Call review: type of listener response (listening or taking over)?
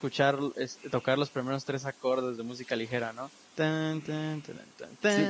taking over